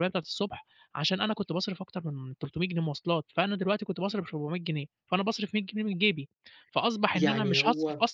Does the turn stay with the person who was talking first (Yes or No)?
Yes